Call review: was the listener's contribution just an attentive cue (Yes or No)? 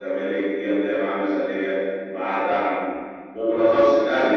Yes